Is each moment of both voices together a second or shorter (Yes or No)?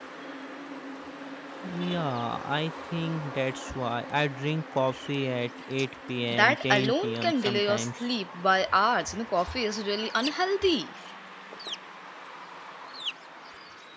No